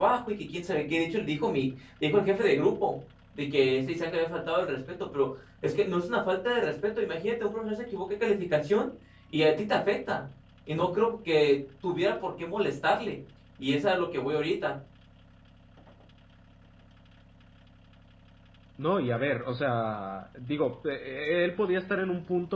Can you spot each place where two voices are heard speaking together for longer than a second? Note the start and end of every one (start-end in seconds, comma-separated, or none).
none